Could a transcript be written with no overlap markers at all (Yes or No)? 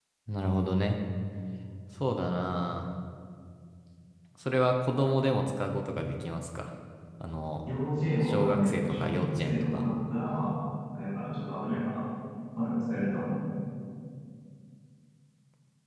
No